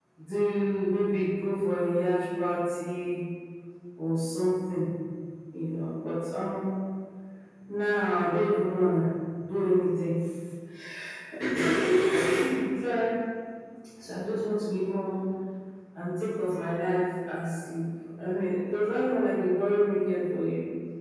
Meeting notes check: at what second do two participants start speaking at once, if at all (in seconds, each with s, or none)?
none